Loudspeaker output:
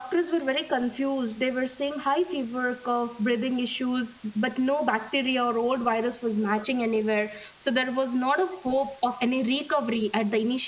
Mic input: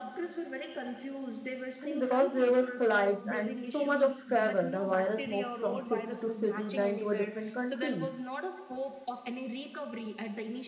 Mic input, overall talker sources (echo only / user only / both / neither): both